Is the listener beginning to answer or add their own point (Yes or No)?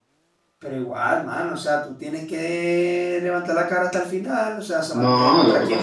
Yes